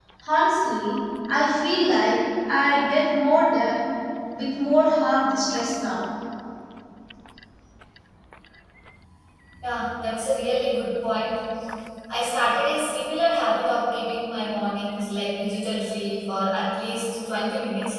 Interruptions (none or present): none